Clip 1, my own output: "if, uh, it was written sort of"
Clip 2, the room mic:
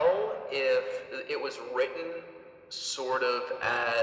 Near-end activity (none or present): none